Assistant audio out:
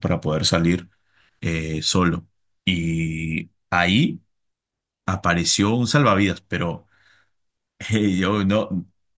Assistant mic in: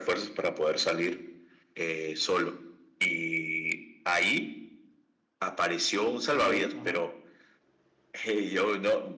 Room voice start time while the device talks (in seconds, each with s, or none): 6.3 s